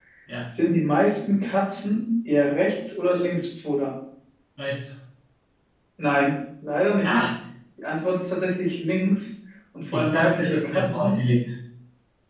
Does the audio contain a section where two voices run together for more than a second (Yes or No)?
Yes